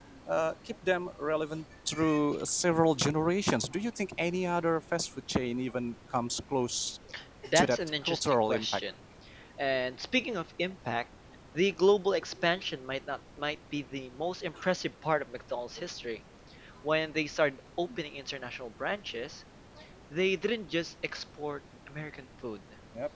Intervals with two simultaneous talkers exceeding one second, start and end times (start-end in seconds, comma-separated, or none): 7.5-8.8